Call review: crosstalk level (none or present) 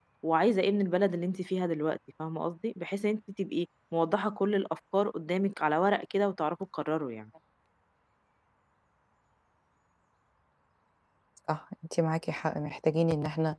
none